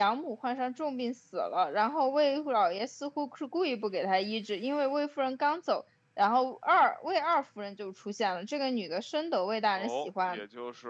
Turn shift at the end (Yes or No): Yes